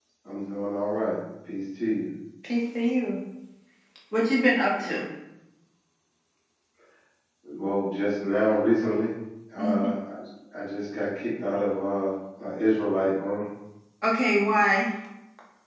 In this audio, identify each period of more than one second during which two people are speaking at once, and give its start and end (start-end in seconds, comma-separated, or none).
none